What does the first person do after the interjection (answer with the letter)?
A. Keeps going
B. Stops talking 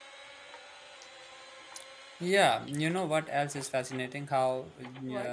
A